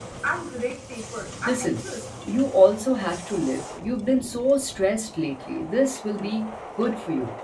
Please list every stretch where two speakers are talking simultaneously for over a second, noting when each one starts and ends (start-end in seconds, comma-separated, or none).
none